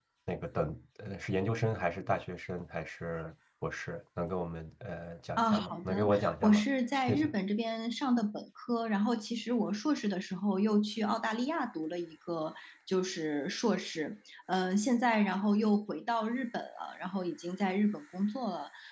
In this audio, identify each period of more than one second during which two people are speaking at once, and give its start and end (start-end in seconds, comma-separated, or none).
5.4-6.6